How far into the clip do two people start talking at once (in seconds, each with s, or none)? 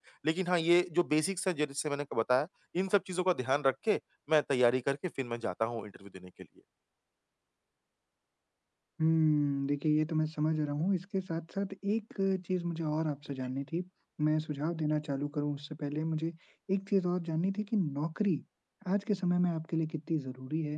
none